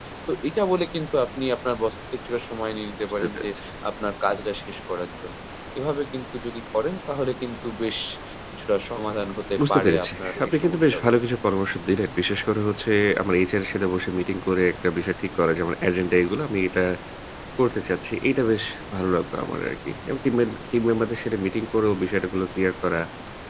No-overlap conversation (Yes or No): No